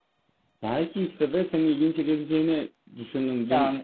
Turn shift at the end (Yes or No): No